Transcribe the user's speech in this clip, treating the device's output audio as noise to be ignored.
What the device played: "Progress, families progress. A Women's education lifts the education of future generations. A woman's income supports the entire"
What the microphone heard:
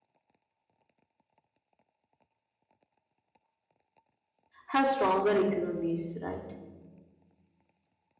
have stronger economies, right?

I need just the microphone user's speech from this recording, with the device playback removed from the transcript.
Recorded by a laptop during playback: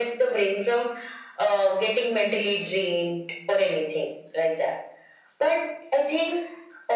none

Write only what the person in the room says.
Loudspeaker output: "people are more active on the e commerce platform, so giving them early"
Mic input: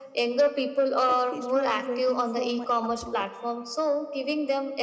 like heist was waiting for my approval.

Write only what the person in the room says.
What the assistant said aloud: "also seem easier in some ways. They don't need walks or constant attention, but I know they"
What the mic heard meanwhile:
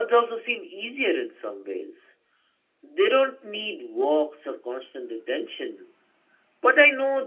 none

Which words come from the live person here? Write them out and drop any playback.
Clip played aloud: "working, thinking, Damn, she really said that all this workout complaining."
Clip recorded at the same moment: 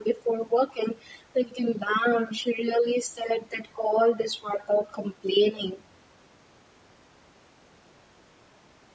none

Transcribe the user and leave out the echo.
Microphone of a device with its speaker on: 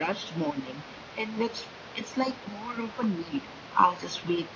none

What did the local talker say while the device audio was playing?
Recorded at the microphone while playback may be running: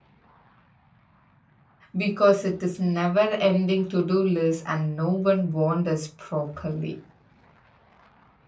Because it is never ending to do list, and no one warned us properly.

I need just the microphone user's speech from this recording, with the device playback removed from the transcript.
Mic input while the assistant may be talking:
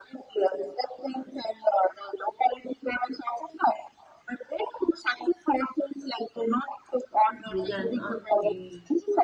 Okay then. Okay.

